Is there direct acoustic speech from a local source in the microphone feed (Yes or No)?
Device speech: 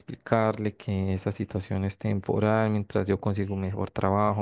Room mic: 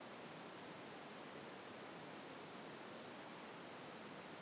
No